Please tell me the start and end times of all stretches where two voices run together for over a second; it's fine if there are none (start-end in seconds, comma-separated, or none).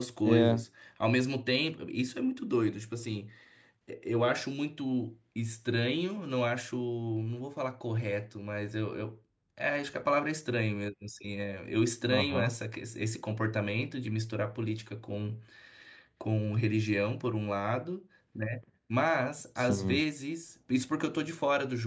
none